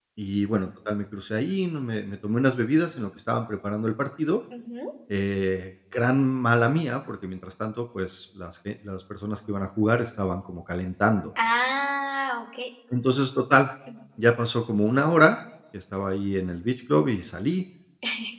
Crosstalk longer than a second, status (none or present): none